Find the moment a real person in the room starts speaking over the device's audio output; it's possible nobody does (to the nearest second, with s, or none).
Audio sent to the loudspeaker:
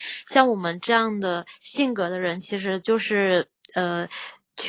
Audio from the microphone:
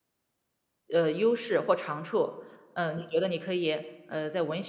1 s